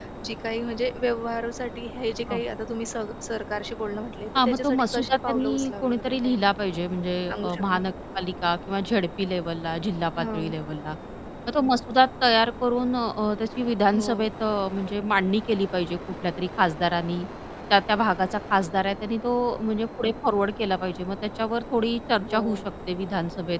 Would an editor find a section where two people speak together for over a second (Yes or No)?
Yes